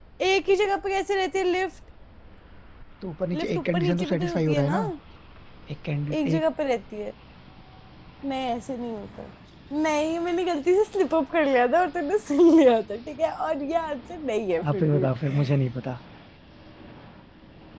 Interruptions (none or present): present